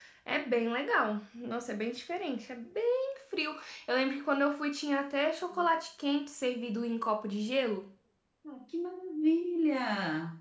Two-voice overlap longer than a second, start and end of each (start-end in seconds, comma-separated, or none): none